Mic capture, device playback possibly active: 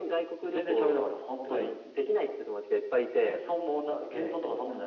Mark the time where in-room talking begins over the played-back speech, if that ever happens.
none

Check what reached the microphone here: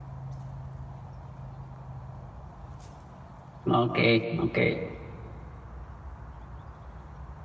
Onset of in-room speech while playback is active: 3.7 s

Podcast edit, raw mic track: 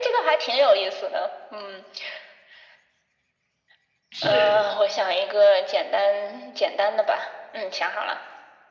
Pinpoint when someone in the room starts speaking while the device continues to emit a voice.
4.1 s

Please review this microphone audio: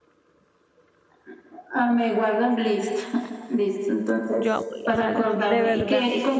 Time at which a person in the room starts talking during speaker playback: 4.3 s

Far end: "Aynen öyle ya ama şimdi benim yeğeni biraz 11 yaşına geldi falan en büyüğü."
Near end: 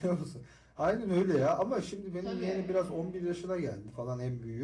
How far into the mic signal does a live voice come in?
2.2 s

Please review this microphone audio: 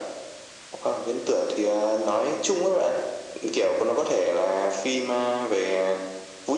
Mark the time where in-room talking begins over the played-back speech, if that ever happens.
none

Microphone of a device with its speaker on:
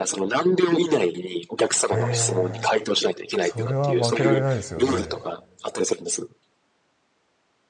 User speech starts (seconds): 1.9 s

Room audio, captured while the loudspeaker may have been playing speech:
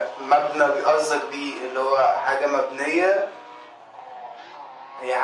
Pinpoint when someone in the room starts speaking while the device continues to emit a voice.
none

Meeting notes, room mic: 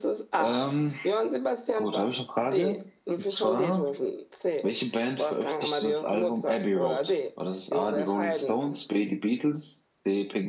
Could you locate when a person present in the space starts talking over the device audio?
none

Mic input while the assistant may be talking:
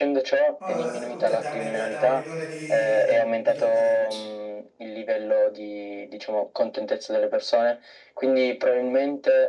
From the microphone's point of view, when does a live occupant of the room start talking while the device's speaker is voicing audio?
0.6 s

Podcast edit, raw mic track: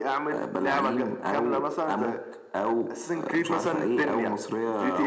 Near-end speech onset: none

